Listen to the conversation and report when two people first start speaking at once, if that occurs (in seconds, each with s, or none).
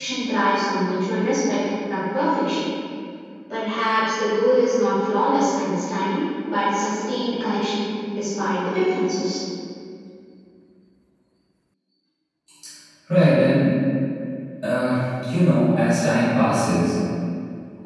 none